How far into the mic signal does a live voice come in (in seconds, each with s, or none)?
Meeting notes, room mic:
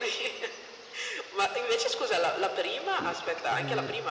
2.9 s